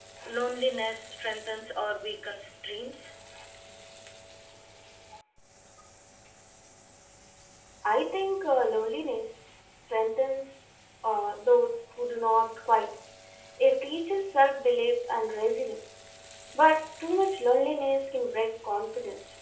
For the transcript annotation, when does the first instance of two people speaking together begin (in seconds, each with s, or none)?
none